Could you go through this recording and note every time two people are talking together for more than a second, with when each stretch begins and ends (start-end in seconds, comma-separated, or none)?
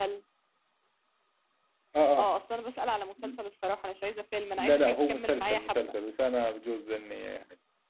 4.6-5.9